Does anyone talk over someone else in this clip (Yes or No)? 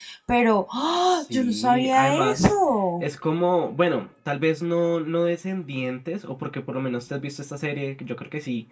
Yes